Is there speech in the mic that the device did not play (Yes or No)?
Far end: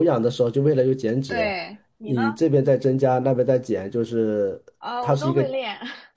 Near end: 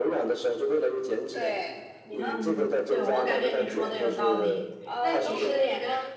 Yes